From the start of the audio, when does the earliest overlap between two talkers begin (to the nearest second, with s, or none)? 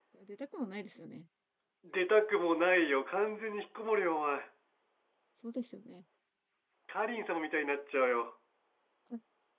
none